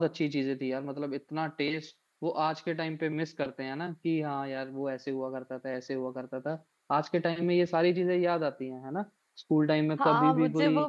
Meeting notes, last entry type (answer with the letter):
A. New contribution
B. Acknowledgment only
A